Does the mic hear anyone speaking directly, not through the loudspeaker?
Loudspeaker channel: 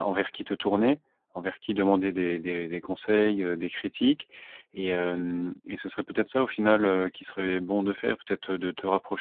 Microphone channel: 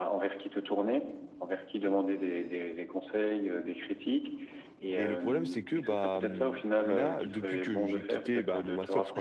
Yes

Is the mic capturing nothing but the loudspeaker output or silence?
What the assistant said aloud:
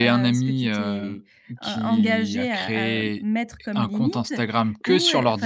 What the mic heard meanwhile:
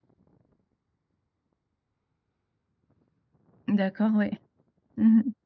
No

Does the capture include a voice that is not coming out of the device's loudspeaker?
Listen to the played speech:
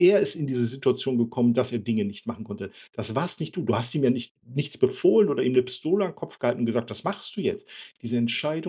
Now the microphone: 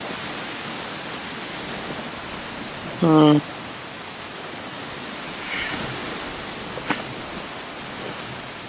Yes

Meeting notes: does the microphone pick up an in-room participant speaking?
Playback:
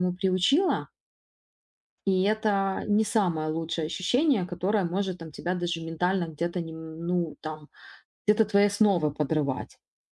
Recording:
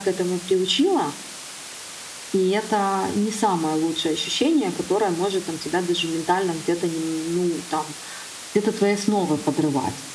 No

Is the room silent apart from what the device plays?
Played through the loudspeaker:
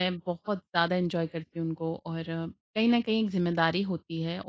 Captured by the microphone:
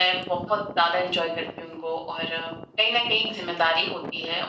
Yes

